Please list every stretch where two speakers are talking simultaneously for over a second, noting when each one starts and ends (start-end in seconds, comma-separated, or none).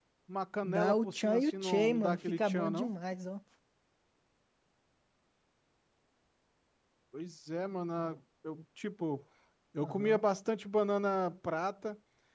0.6-2.9